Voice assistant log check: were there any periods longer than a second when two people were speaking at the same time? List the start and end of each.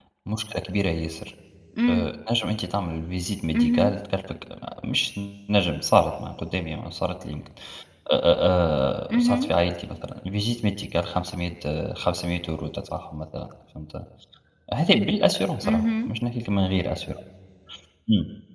none

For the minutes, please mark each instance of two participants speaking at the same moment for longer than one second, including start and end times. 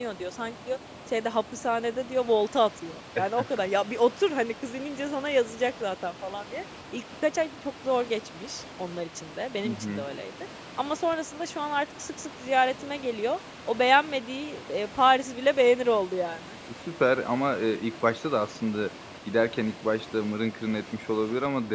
none

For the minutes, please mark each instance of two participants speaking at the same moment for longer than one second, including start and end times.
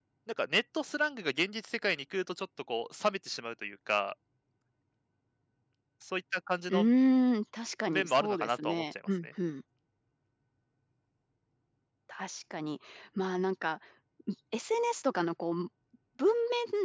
7.9-9.3

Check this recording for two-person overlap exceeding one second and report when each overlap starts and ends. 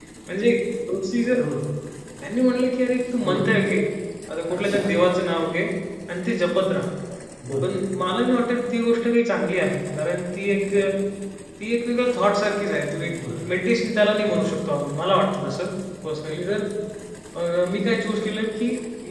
none

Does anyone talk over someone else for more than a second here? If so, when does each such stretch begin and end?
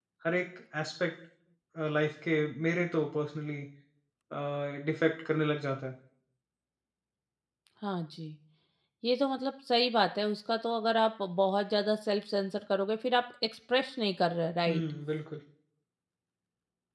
none

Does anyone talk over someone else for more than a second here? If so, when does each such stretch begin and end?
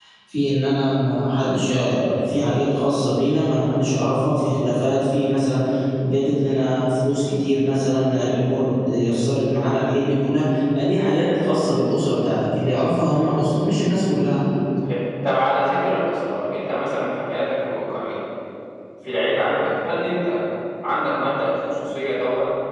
none

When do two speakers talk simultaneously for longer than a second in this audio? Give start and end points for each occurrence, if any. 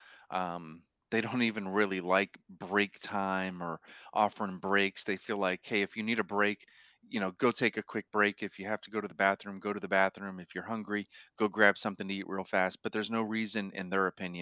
none

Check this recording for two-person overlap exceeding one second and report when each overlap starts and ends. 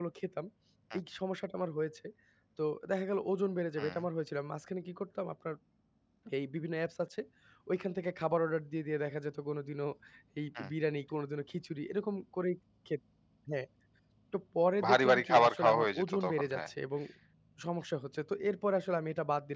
14.8-16.7

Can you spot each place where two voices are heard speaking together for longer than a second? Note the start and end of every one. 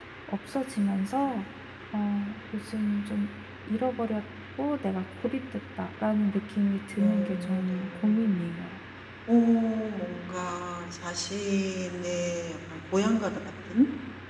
7.0-8.4

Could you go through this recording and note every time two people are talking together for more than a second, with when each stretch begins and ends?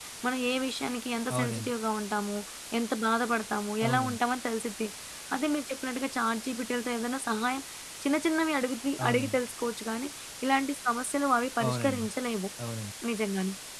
none

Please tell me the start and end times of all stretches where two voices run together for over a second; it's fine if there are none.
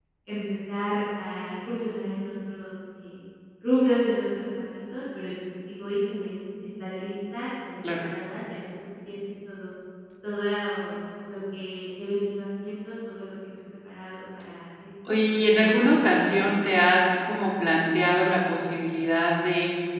15.1-16.5

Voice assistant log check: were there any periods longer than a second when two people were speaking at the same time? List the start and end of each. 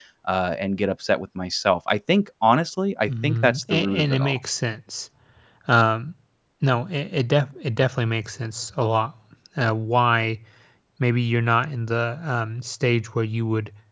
3.1-4.4

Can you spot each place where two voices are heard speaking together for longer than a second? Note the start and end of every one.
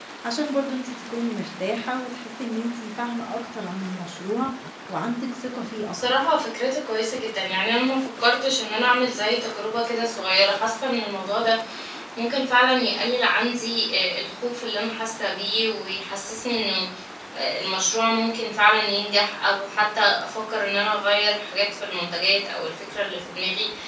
none

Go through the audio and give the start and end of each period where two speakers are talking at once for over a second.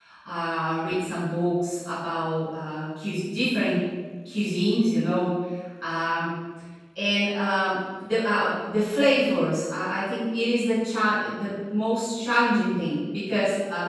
none

